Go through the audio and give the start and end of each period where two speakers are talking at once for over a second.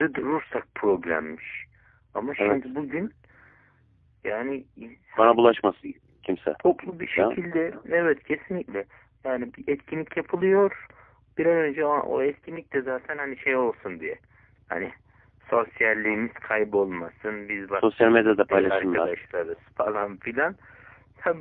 17.8-19.1

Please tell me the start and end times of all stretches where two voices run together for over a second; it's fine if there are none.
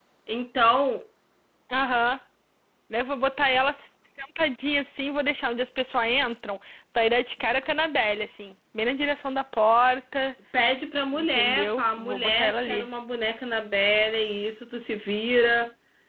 11.1-12.9

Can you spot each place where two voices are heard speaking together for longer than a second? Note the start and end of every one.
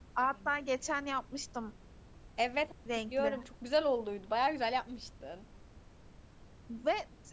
none

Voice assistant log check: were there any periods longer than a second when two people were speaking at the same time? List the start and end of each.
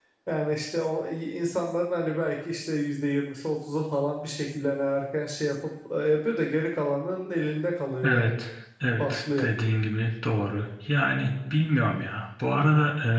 none

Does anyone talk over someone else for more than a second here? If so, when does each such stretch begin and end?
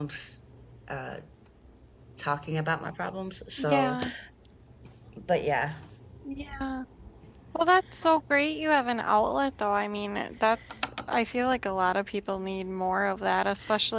none

